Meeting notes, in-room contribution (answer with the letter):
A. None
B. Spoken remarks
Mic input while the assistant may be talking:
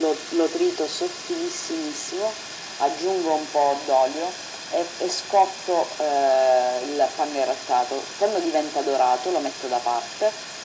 A